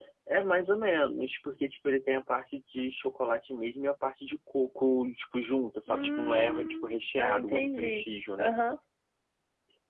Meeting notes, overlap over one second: present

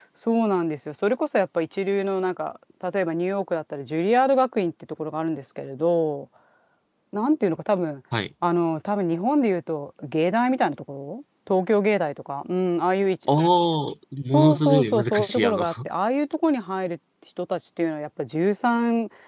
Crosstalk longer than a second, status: present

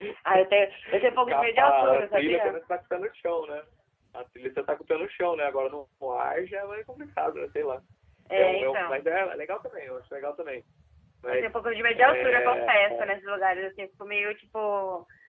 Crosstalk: present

